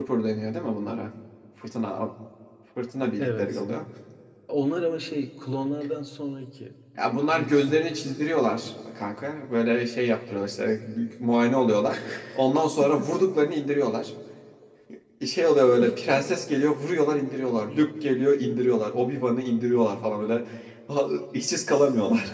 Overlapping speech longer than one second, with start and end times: 7.3-8.8

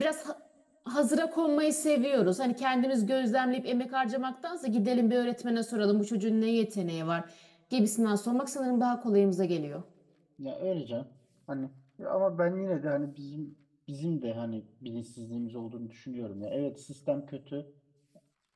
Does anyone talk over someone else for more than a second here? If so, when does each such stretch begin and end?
none

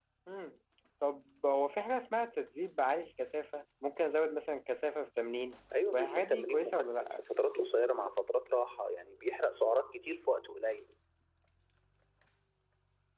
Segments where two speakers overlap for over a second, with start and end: 5.9-7.2

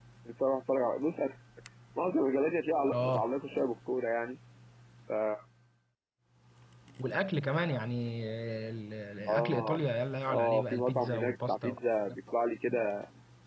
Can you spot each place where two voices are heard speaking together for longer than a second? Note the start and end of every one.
10.3-11.7

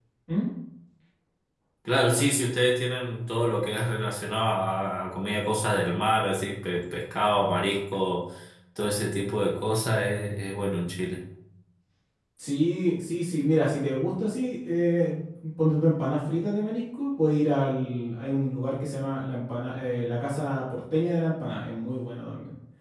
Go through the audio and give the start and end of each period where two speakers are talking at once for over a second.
none

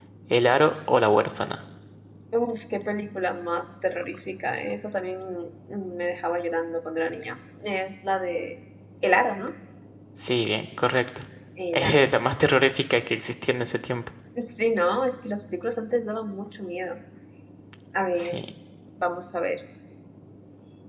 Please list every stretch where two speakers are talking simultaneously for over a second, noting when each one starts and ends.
none

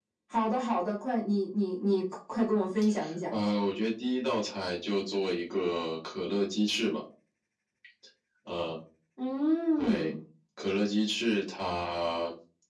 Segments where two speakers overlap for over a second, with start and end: none

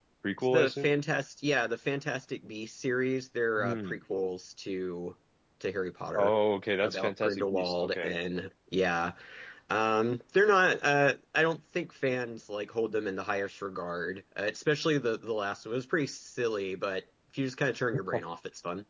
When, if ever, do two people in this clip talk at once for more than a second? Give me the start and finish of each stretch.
6.8-8.2

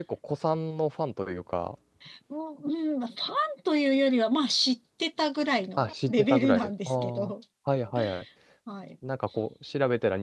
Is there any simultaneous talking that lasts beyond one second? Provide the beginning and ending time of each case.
5.8-7.3

